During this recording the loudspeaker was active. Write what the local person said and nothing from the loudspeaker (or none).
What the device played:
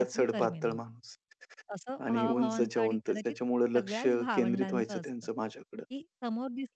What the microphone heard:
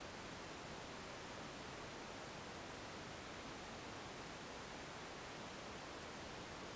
none